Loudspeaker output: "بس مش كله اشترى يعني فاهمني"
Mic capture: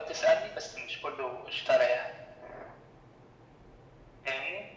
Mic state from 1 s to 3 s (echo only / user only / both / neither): echo only